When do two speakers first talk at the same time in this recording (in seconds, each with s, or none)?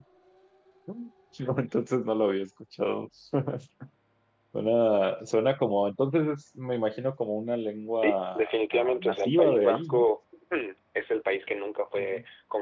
7.9 s